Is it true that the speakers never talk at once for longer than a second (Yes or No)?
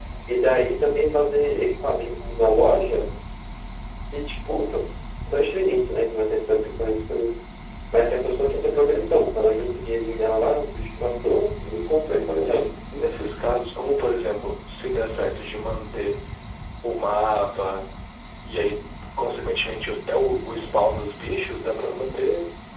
Yes